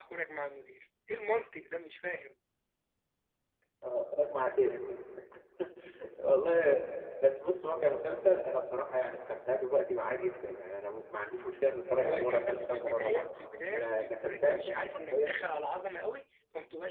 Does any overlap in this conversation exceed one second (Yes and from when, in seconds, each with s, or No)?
Yes, from 12.1 s